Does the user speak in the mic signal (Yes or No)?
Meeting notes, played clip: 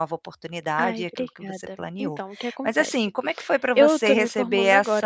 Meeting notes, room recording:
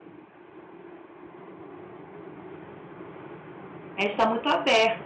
Yes